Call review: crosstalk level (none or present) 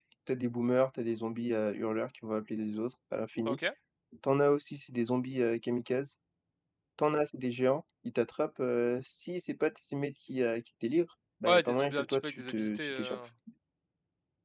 present